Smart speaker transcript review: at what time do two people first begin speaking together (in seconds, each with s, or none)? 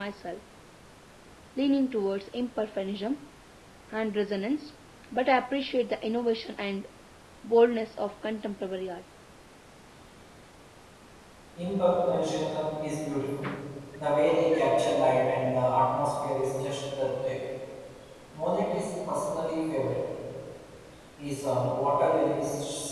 none